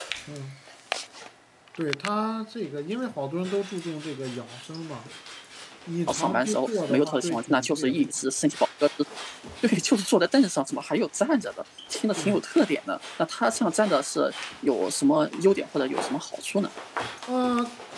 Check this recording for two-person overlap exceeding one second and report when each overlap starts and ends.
6.1-8.1

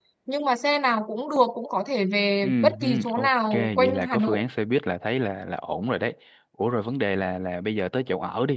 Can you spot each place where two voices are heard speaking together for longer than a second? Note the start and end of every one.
2.4-4.4

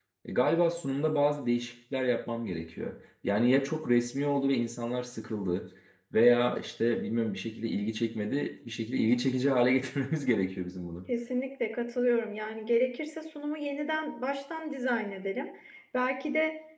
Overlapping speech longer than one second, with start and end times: none

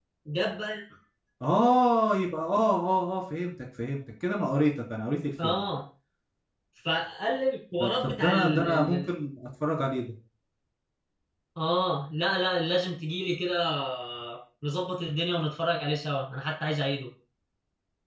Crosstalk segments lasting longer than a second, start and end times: 7.8-9.1

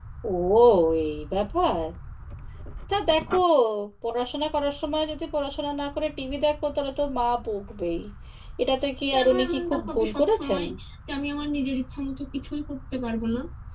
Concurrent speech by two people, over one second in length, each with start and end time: 9.1-10.6

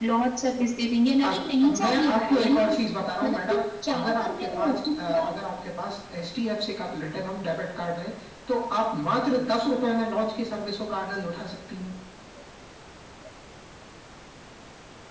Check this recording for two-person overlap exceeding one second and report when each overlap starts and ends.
1.2-2.6, 4.0-5.3

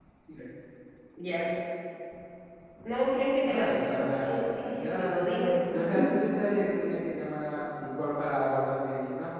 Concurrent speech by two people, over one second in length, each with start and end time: 3.5-5.2

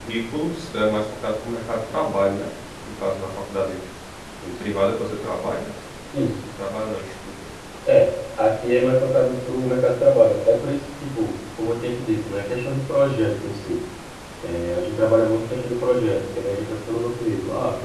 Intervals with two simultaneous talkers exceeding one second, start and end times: none

